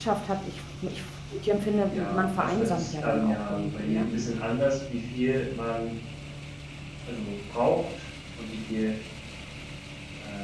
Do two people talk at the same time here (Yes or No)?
Yes